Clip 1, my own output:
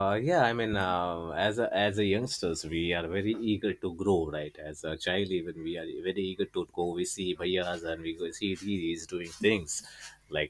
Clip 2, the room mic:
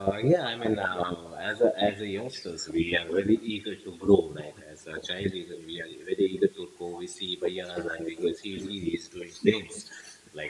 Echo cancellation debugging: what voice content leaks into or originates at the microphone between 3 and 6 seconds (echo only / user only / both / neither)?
echo only